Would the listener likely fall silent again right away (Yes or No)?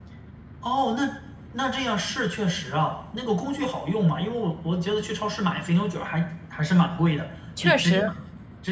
Yes